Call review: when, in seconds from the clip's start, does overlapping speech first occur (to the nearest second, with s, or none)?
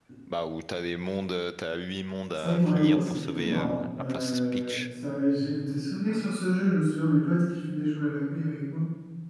2 s